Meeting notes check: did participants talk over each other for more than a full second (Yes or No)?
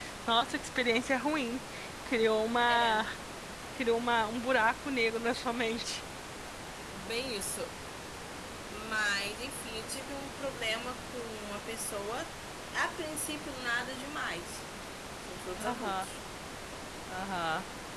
No